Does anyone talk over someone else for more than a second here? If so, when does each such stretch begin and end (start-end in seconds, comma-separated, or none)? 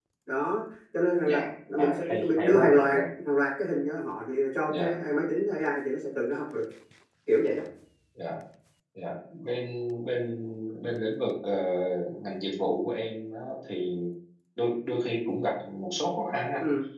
1.8-3.0